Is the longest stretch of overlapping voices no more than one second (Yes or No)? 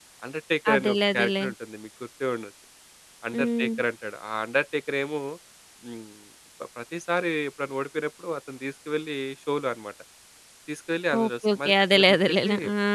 No